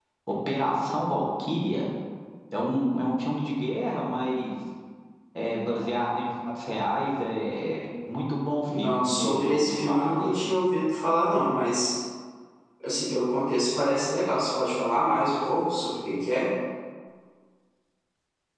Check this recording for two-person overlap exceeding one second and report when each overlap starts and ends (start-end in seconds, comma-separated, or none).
8.7-10.4